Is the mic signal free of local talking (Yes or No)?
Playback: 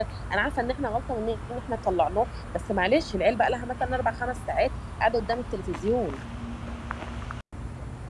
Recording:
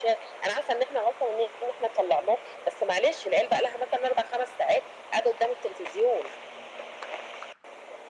Yes